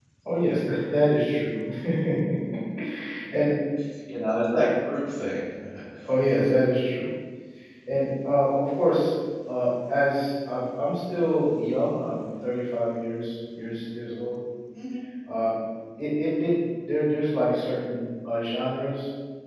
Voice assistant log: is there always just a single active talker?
Yes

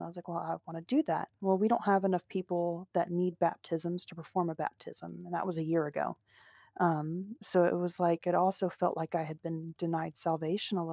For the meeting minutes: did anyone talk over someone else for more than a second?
No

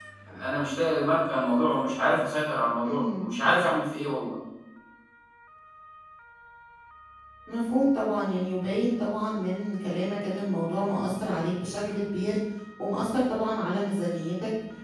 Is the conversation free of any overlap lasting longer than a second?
Yes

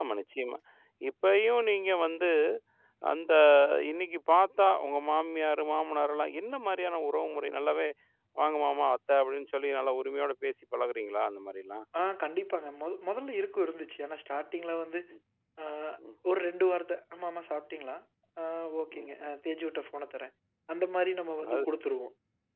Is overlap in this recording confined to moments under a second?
Yes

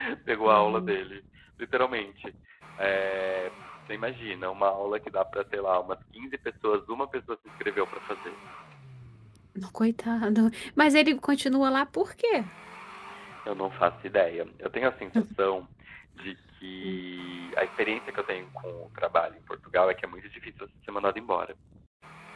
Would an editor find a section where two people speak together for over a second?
No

